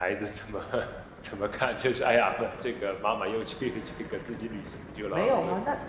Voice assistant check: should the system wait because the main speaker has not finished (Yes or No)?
No